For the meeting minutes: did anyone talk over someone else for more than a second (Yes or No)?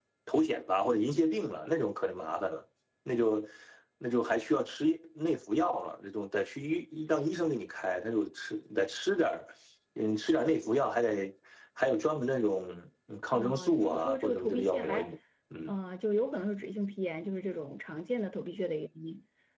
Yes